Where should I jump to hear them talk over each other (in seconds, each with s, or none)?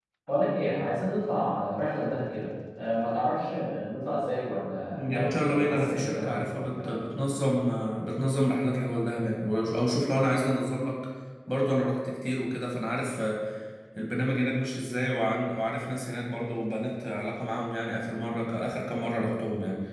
4.9 s